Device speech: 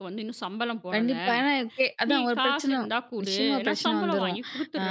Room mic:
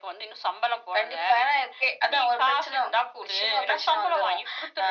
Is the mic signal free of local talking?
Yes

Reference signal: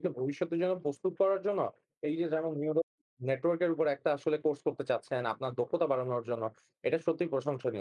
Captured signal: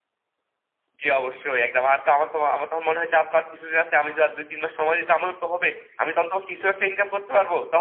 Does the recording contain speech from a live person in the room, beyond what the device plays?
Yes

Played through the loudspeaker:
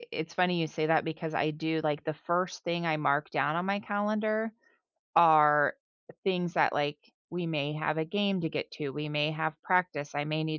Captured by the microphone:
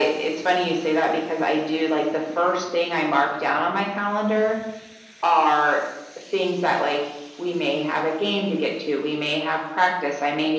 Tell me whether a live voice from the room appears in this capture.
No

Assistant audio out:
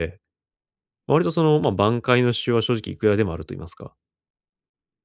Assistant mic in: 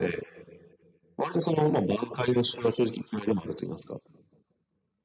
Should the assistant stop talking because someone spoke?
No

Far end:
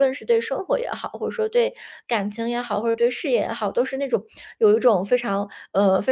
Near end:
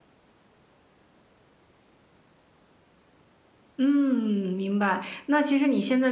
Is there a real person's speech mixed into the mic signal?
Yes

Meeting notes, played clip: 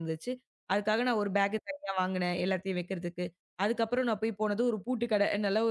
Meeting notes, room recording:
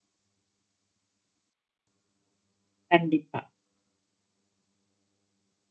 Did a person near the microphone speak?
Yes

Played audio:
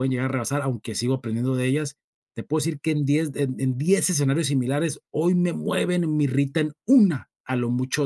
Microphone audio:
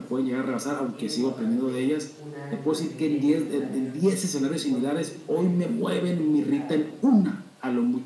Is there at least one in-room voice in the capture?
Yes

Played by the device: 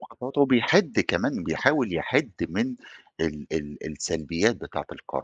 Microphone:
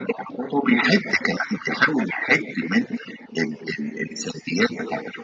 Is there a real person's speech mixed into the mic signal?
No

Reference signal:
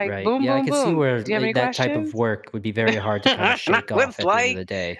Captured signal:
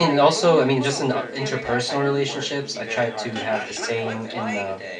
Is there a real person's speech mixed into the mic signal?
Yes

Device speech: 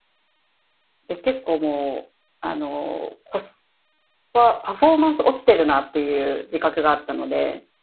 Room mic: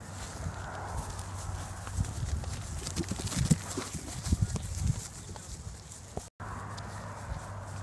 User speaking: No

